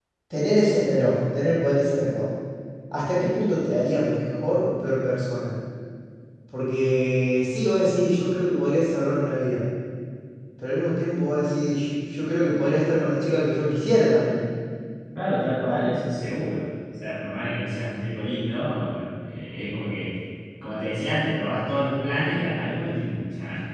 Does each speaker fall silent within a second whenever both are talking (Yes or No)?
Yes